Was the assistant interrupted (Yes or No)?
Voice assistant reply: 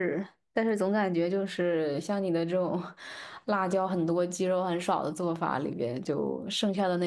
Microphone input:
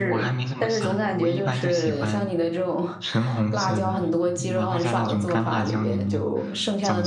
Yes